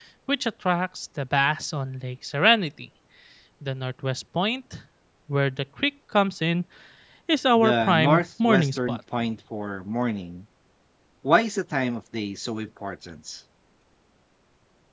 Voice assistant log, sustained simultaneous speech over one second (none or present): present